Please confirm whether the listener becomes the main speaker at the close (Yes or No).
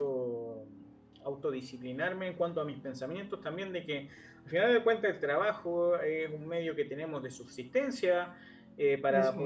No